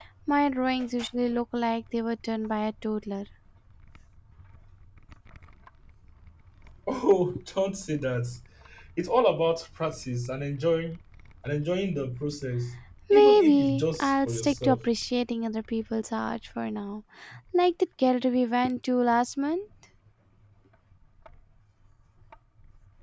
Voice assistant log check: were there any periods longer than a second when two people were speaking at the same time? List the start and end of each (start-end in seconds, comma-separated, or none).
13.1-14.8